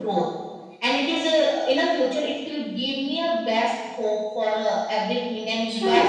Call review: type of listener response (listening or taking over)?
taking over